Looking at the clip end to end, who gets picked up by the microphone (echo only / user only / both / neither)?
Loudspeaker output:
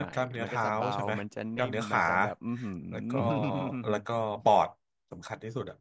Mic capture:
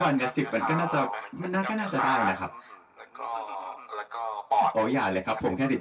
both